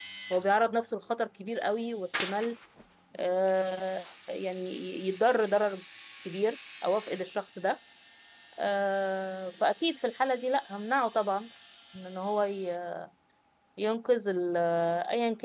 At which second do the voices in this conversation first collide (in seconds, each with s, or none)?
none